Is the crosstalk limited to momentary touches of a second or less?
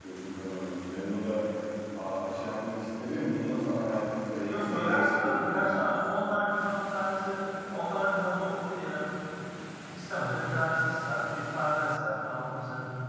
No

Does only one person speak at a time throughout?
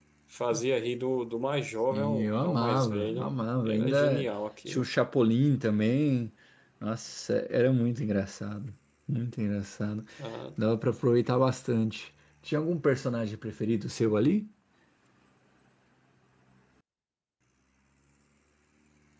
No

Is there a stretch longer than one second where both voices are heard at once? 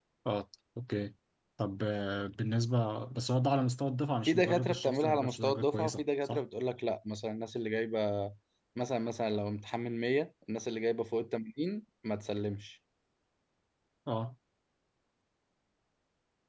Yes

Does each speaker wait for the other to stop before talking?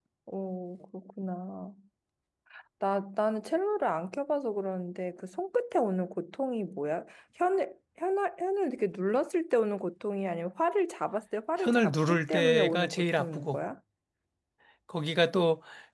No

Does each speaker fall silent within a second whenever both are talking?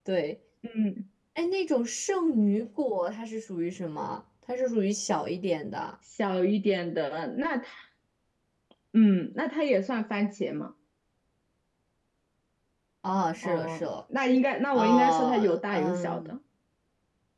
No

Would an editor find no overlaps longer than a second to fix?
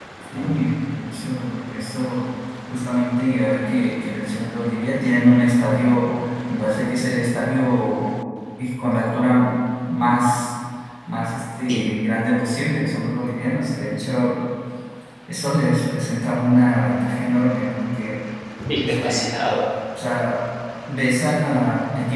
Yes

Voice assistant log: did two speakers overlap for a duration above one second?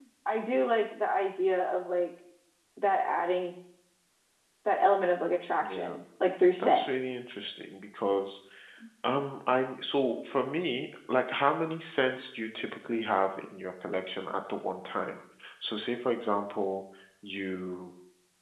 No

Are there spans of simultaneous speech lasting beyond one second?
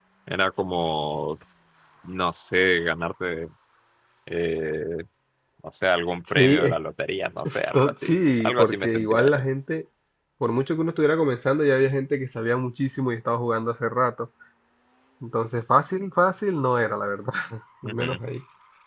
Yes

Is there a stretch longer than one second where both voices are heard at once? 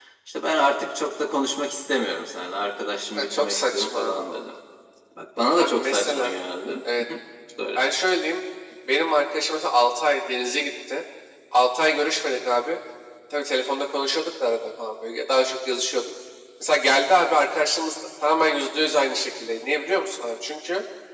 Yes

